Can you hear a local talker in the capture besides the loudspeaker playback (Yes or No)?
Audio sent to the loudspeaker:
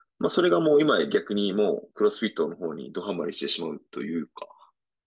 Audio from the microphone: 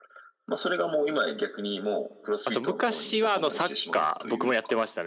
Yes